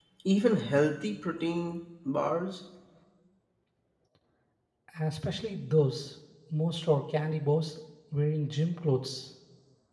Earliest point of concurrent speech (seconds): none

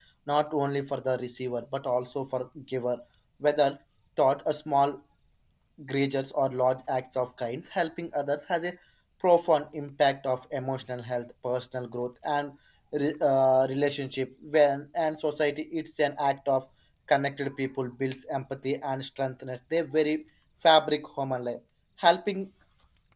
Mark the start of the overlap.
none

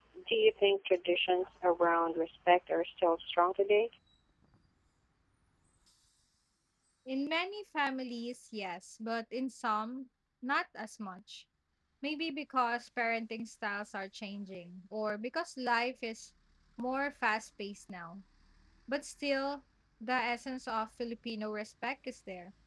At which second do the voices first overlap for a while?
none

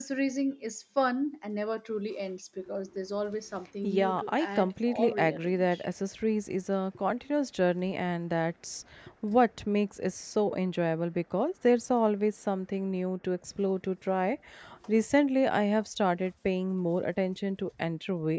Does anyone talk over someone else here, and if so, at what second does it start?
3.8 s

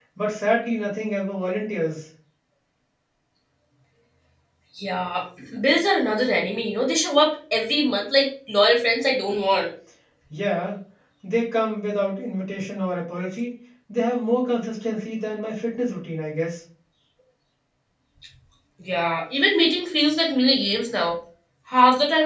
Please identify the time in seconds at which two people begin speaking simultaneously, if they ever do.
none

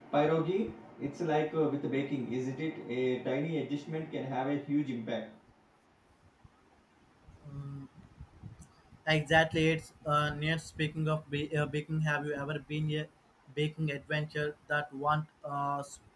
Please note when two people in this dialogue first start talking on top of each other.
none

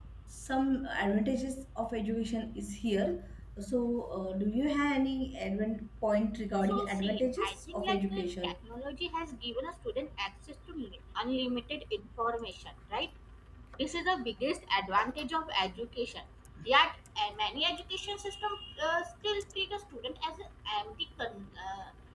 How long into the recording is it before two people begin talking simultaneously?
6.7 s

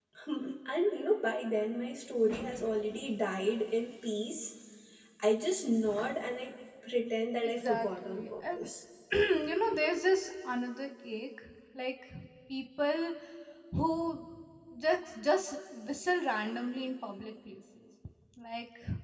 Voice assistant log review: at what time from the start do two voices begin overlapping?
7.4 s

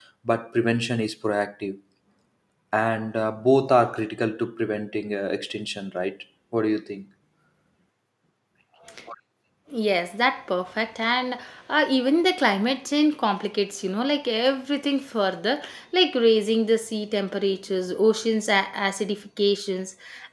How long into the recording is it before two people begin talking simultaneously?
none

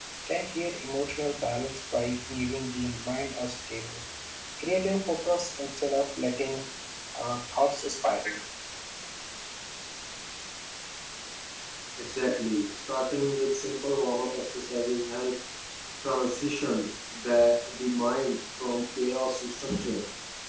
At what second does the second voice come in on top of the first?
none

